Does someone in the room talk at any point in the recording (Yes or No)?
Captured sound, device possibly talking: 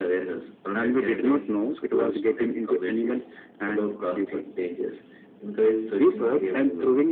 No